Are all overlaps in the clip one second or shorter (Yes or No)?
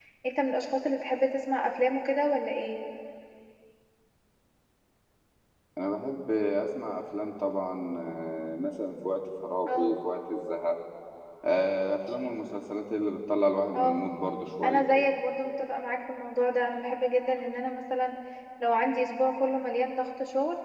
Yes